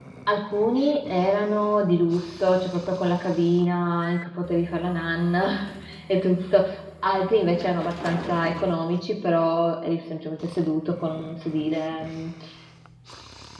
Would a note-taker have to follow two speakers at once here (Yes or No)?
No